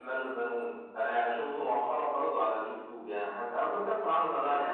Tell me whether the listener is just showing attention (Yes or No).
Yes